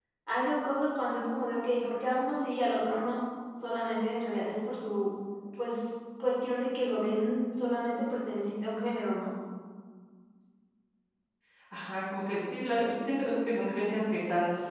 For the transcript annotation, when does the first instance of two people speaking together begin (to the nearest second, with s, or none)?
none